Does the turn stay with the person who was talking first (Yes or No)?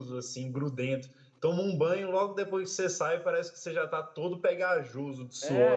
No